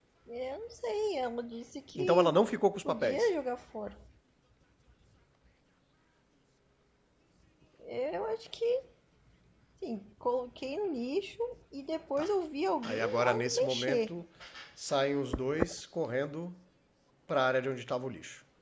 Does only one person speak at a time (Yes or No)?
No